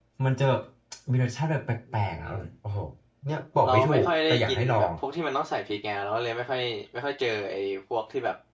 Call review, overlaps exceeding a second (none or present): present